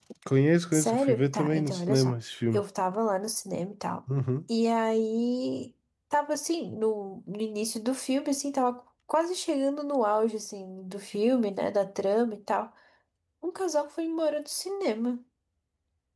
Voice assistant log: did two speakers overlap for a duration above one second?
Yes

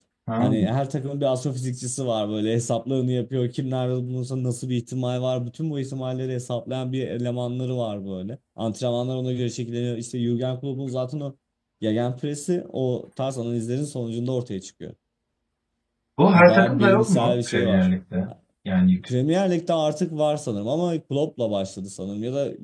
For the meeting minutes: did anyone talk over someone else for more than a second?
Yes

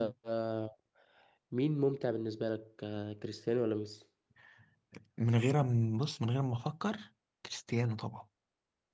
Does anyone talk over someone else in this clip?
No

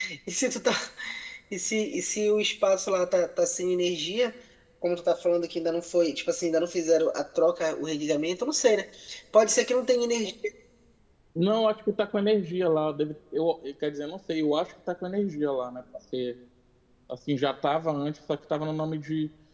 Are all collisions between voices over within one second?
Yes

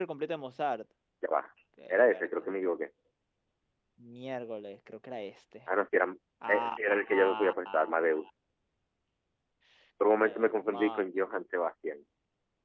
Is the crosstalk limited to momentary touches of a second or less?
No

